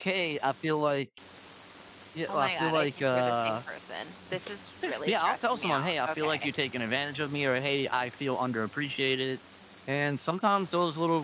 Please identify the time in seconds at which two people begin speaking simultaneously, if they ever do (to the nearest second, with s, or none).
2 s